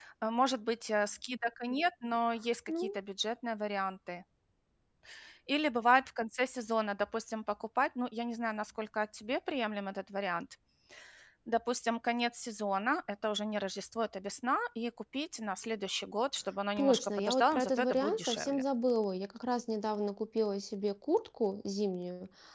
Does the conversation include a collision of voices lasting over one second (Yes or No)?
Yes